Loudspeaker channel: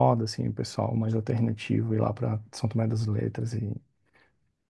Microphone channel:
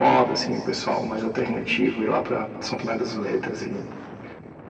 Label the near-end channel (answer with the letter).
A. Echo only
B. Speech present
A